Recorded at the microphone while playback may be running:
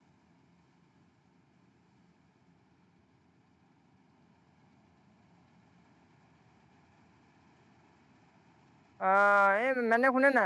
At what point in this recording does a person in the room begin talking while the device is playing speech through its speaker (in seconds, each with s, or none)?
9.1 s